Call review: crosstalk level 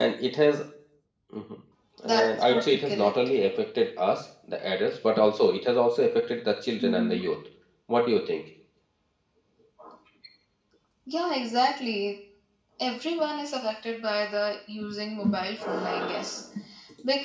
present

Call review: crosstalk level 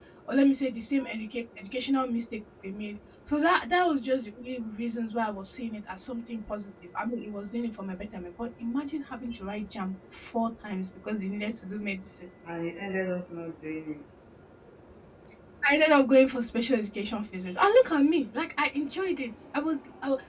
none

